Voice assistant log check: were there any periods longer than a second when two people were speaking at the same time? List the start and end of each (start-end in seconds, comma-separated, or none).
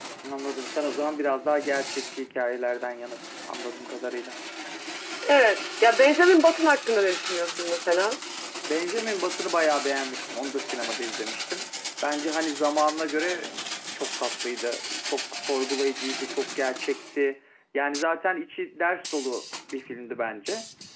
none